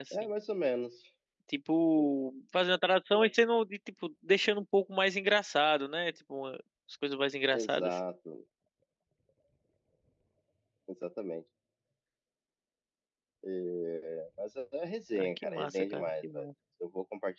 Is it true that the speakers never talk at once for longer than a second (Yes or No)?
No